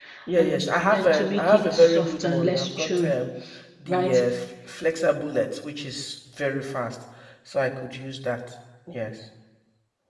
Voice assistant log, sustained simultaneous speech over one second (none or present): present